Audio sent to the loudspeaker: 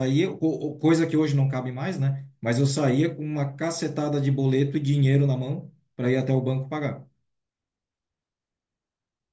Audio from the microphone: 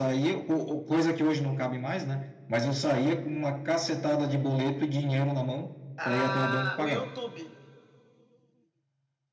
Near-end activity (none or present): present